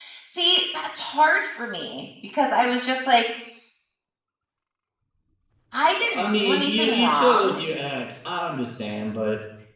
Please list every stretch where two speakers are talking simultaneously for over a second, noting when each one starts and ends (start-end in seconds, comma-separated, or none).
6.0-7.6